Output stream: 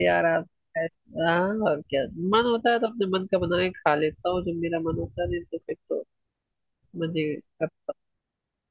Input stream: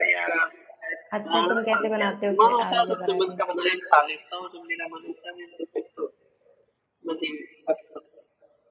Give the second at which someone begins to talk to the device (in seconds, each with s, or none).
1.2 s